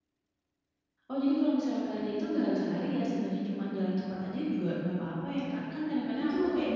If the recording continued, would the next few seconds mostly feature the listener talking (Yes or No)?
No